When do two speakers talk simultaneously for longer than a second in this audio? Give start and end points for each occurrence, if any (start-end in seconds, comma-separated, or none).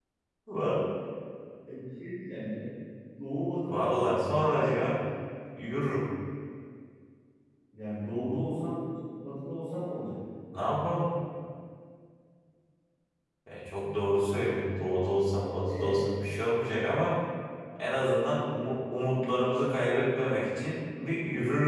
3.6-4.9